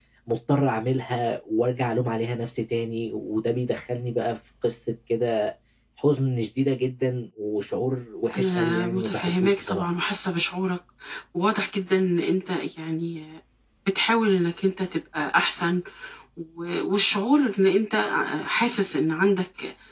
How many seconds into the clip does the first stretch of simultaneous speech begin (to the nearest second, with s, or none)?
8 s